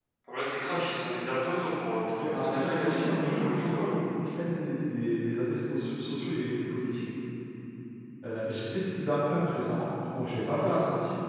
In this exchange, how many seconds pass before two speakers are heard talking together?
2 s

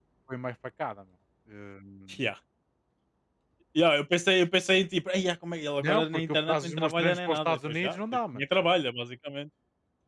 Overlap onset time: 6 s

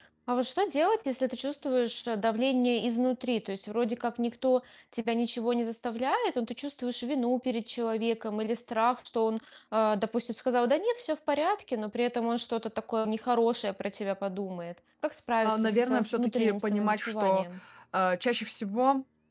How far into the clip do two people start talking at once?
15 s

